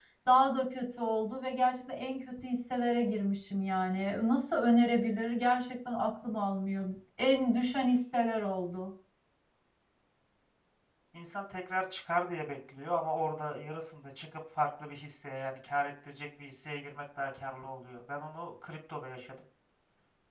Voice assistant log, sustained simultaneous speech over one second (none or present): none